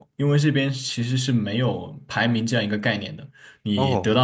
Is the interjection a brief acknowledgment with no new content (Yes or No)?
Yes